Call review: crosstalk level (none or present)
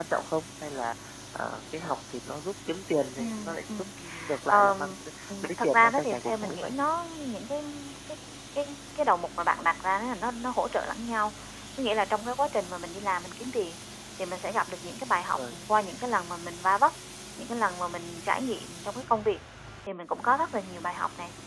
present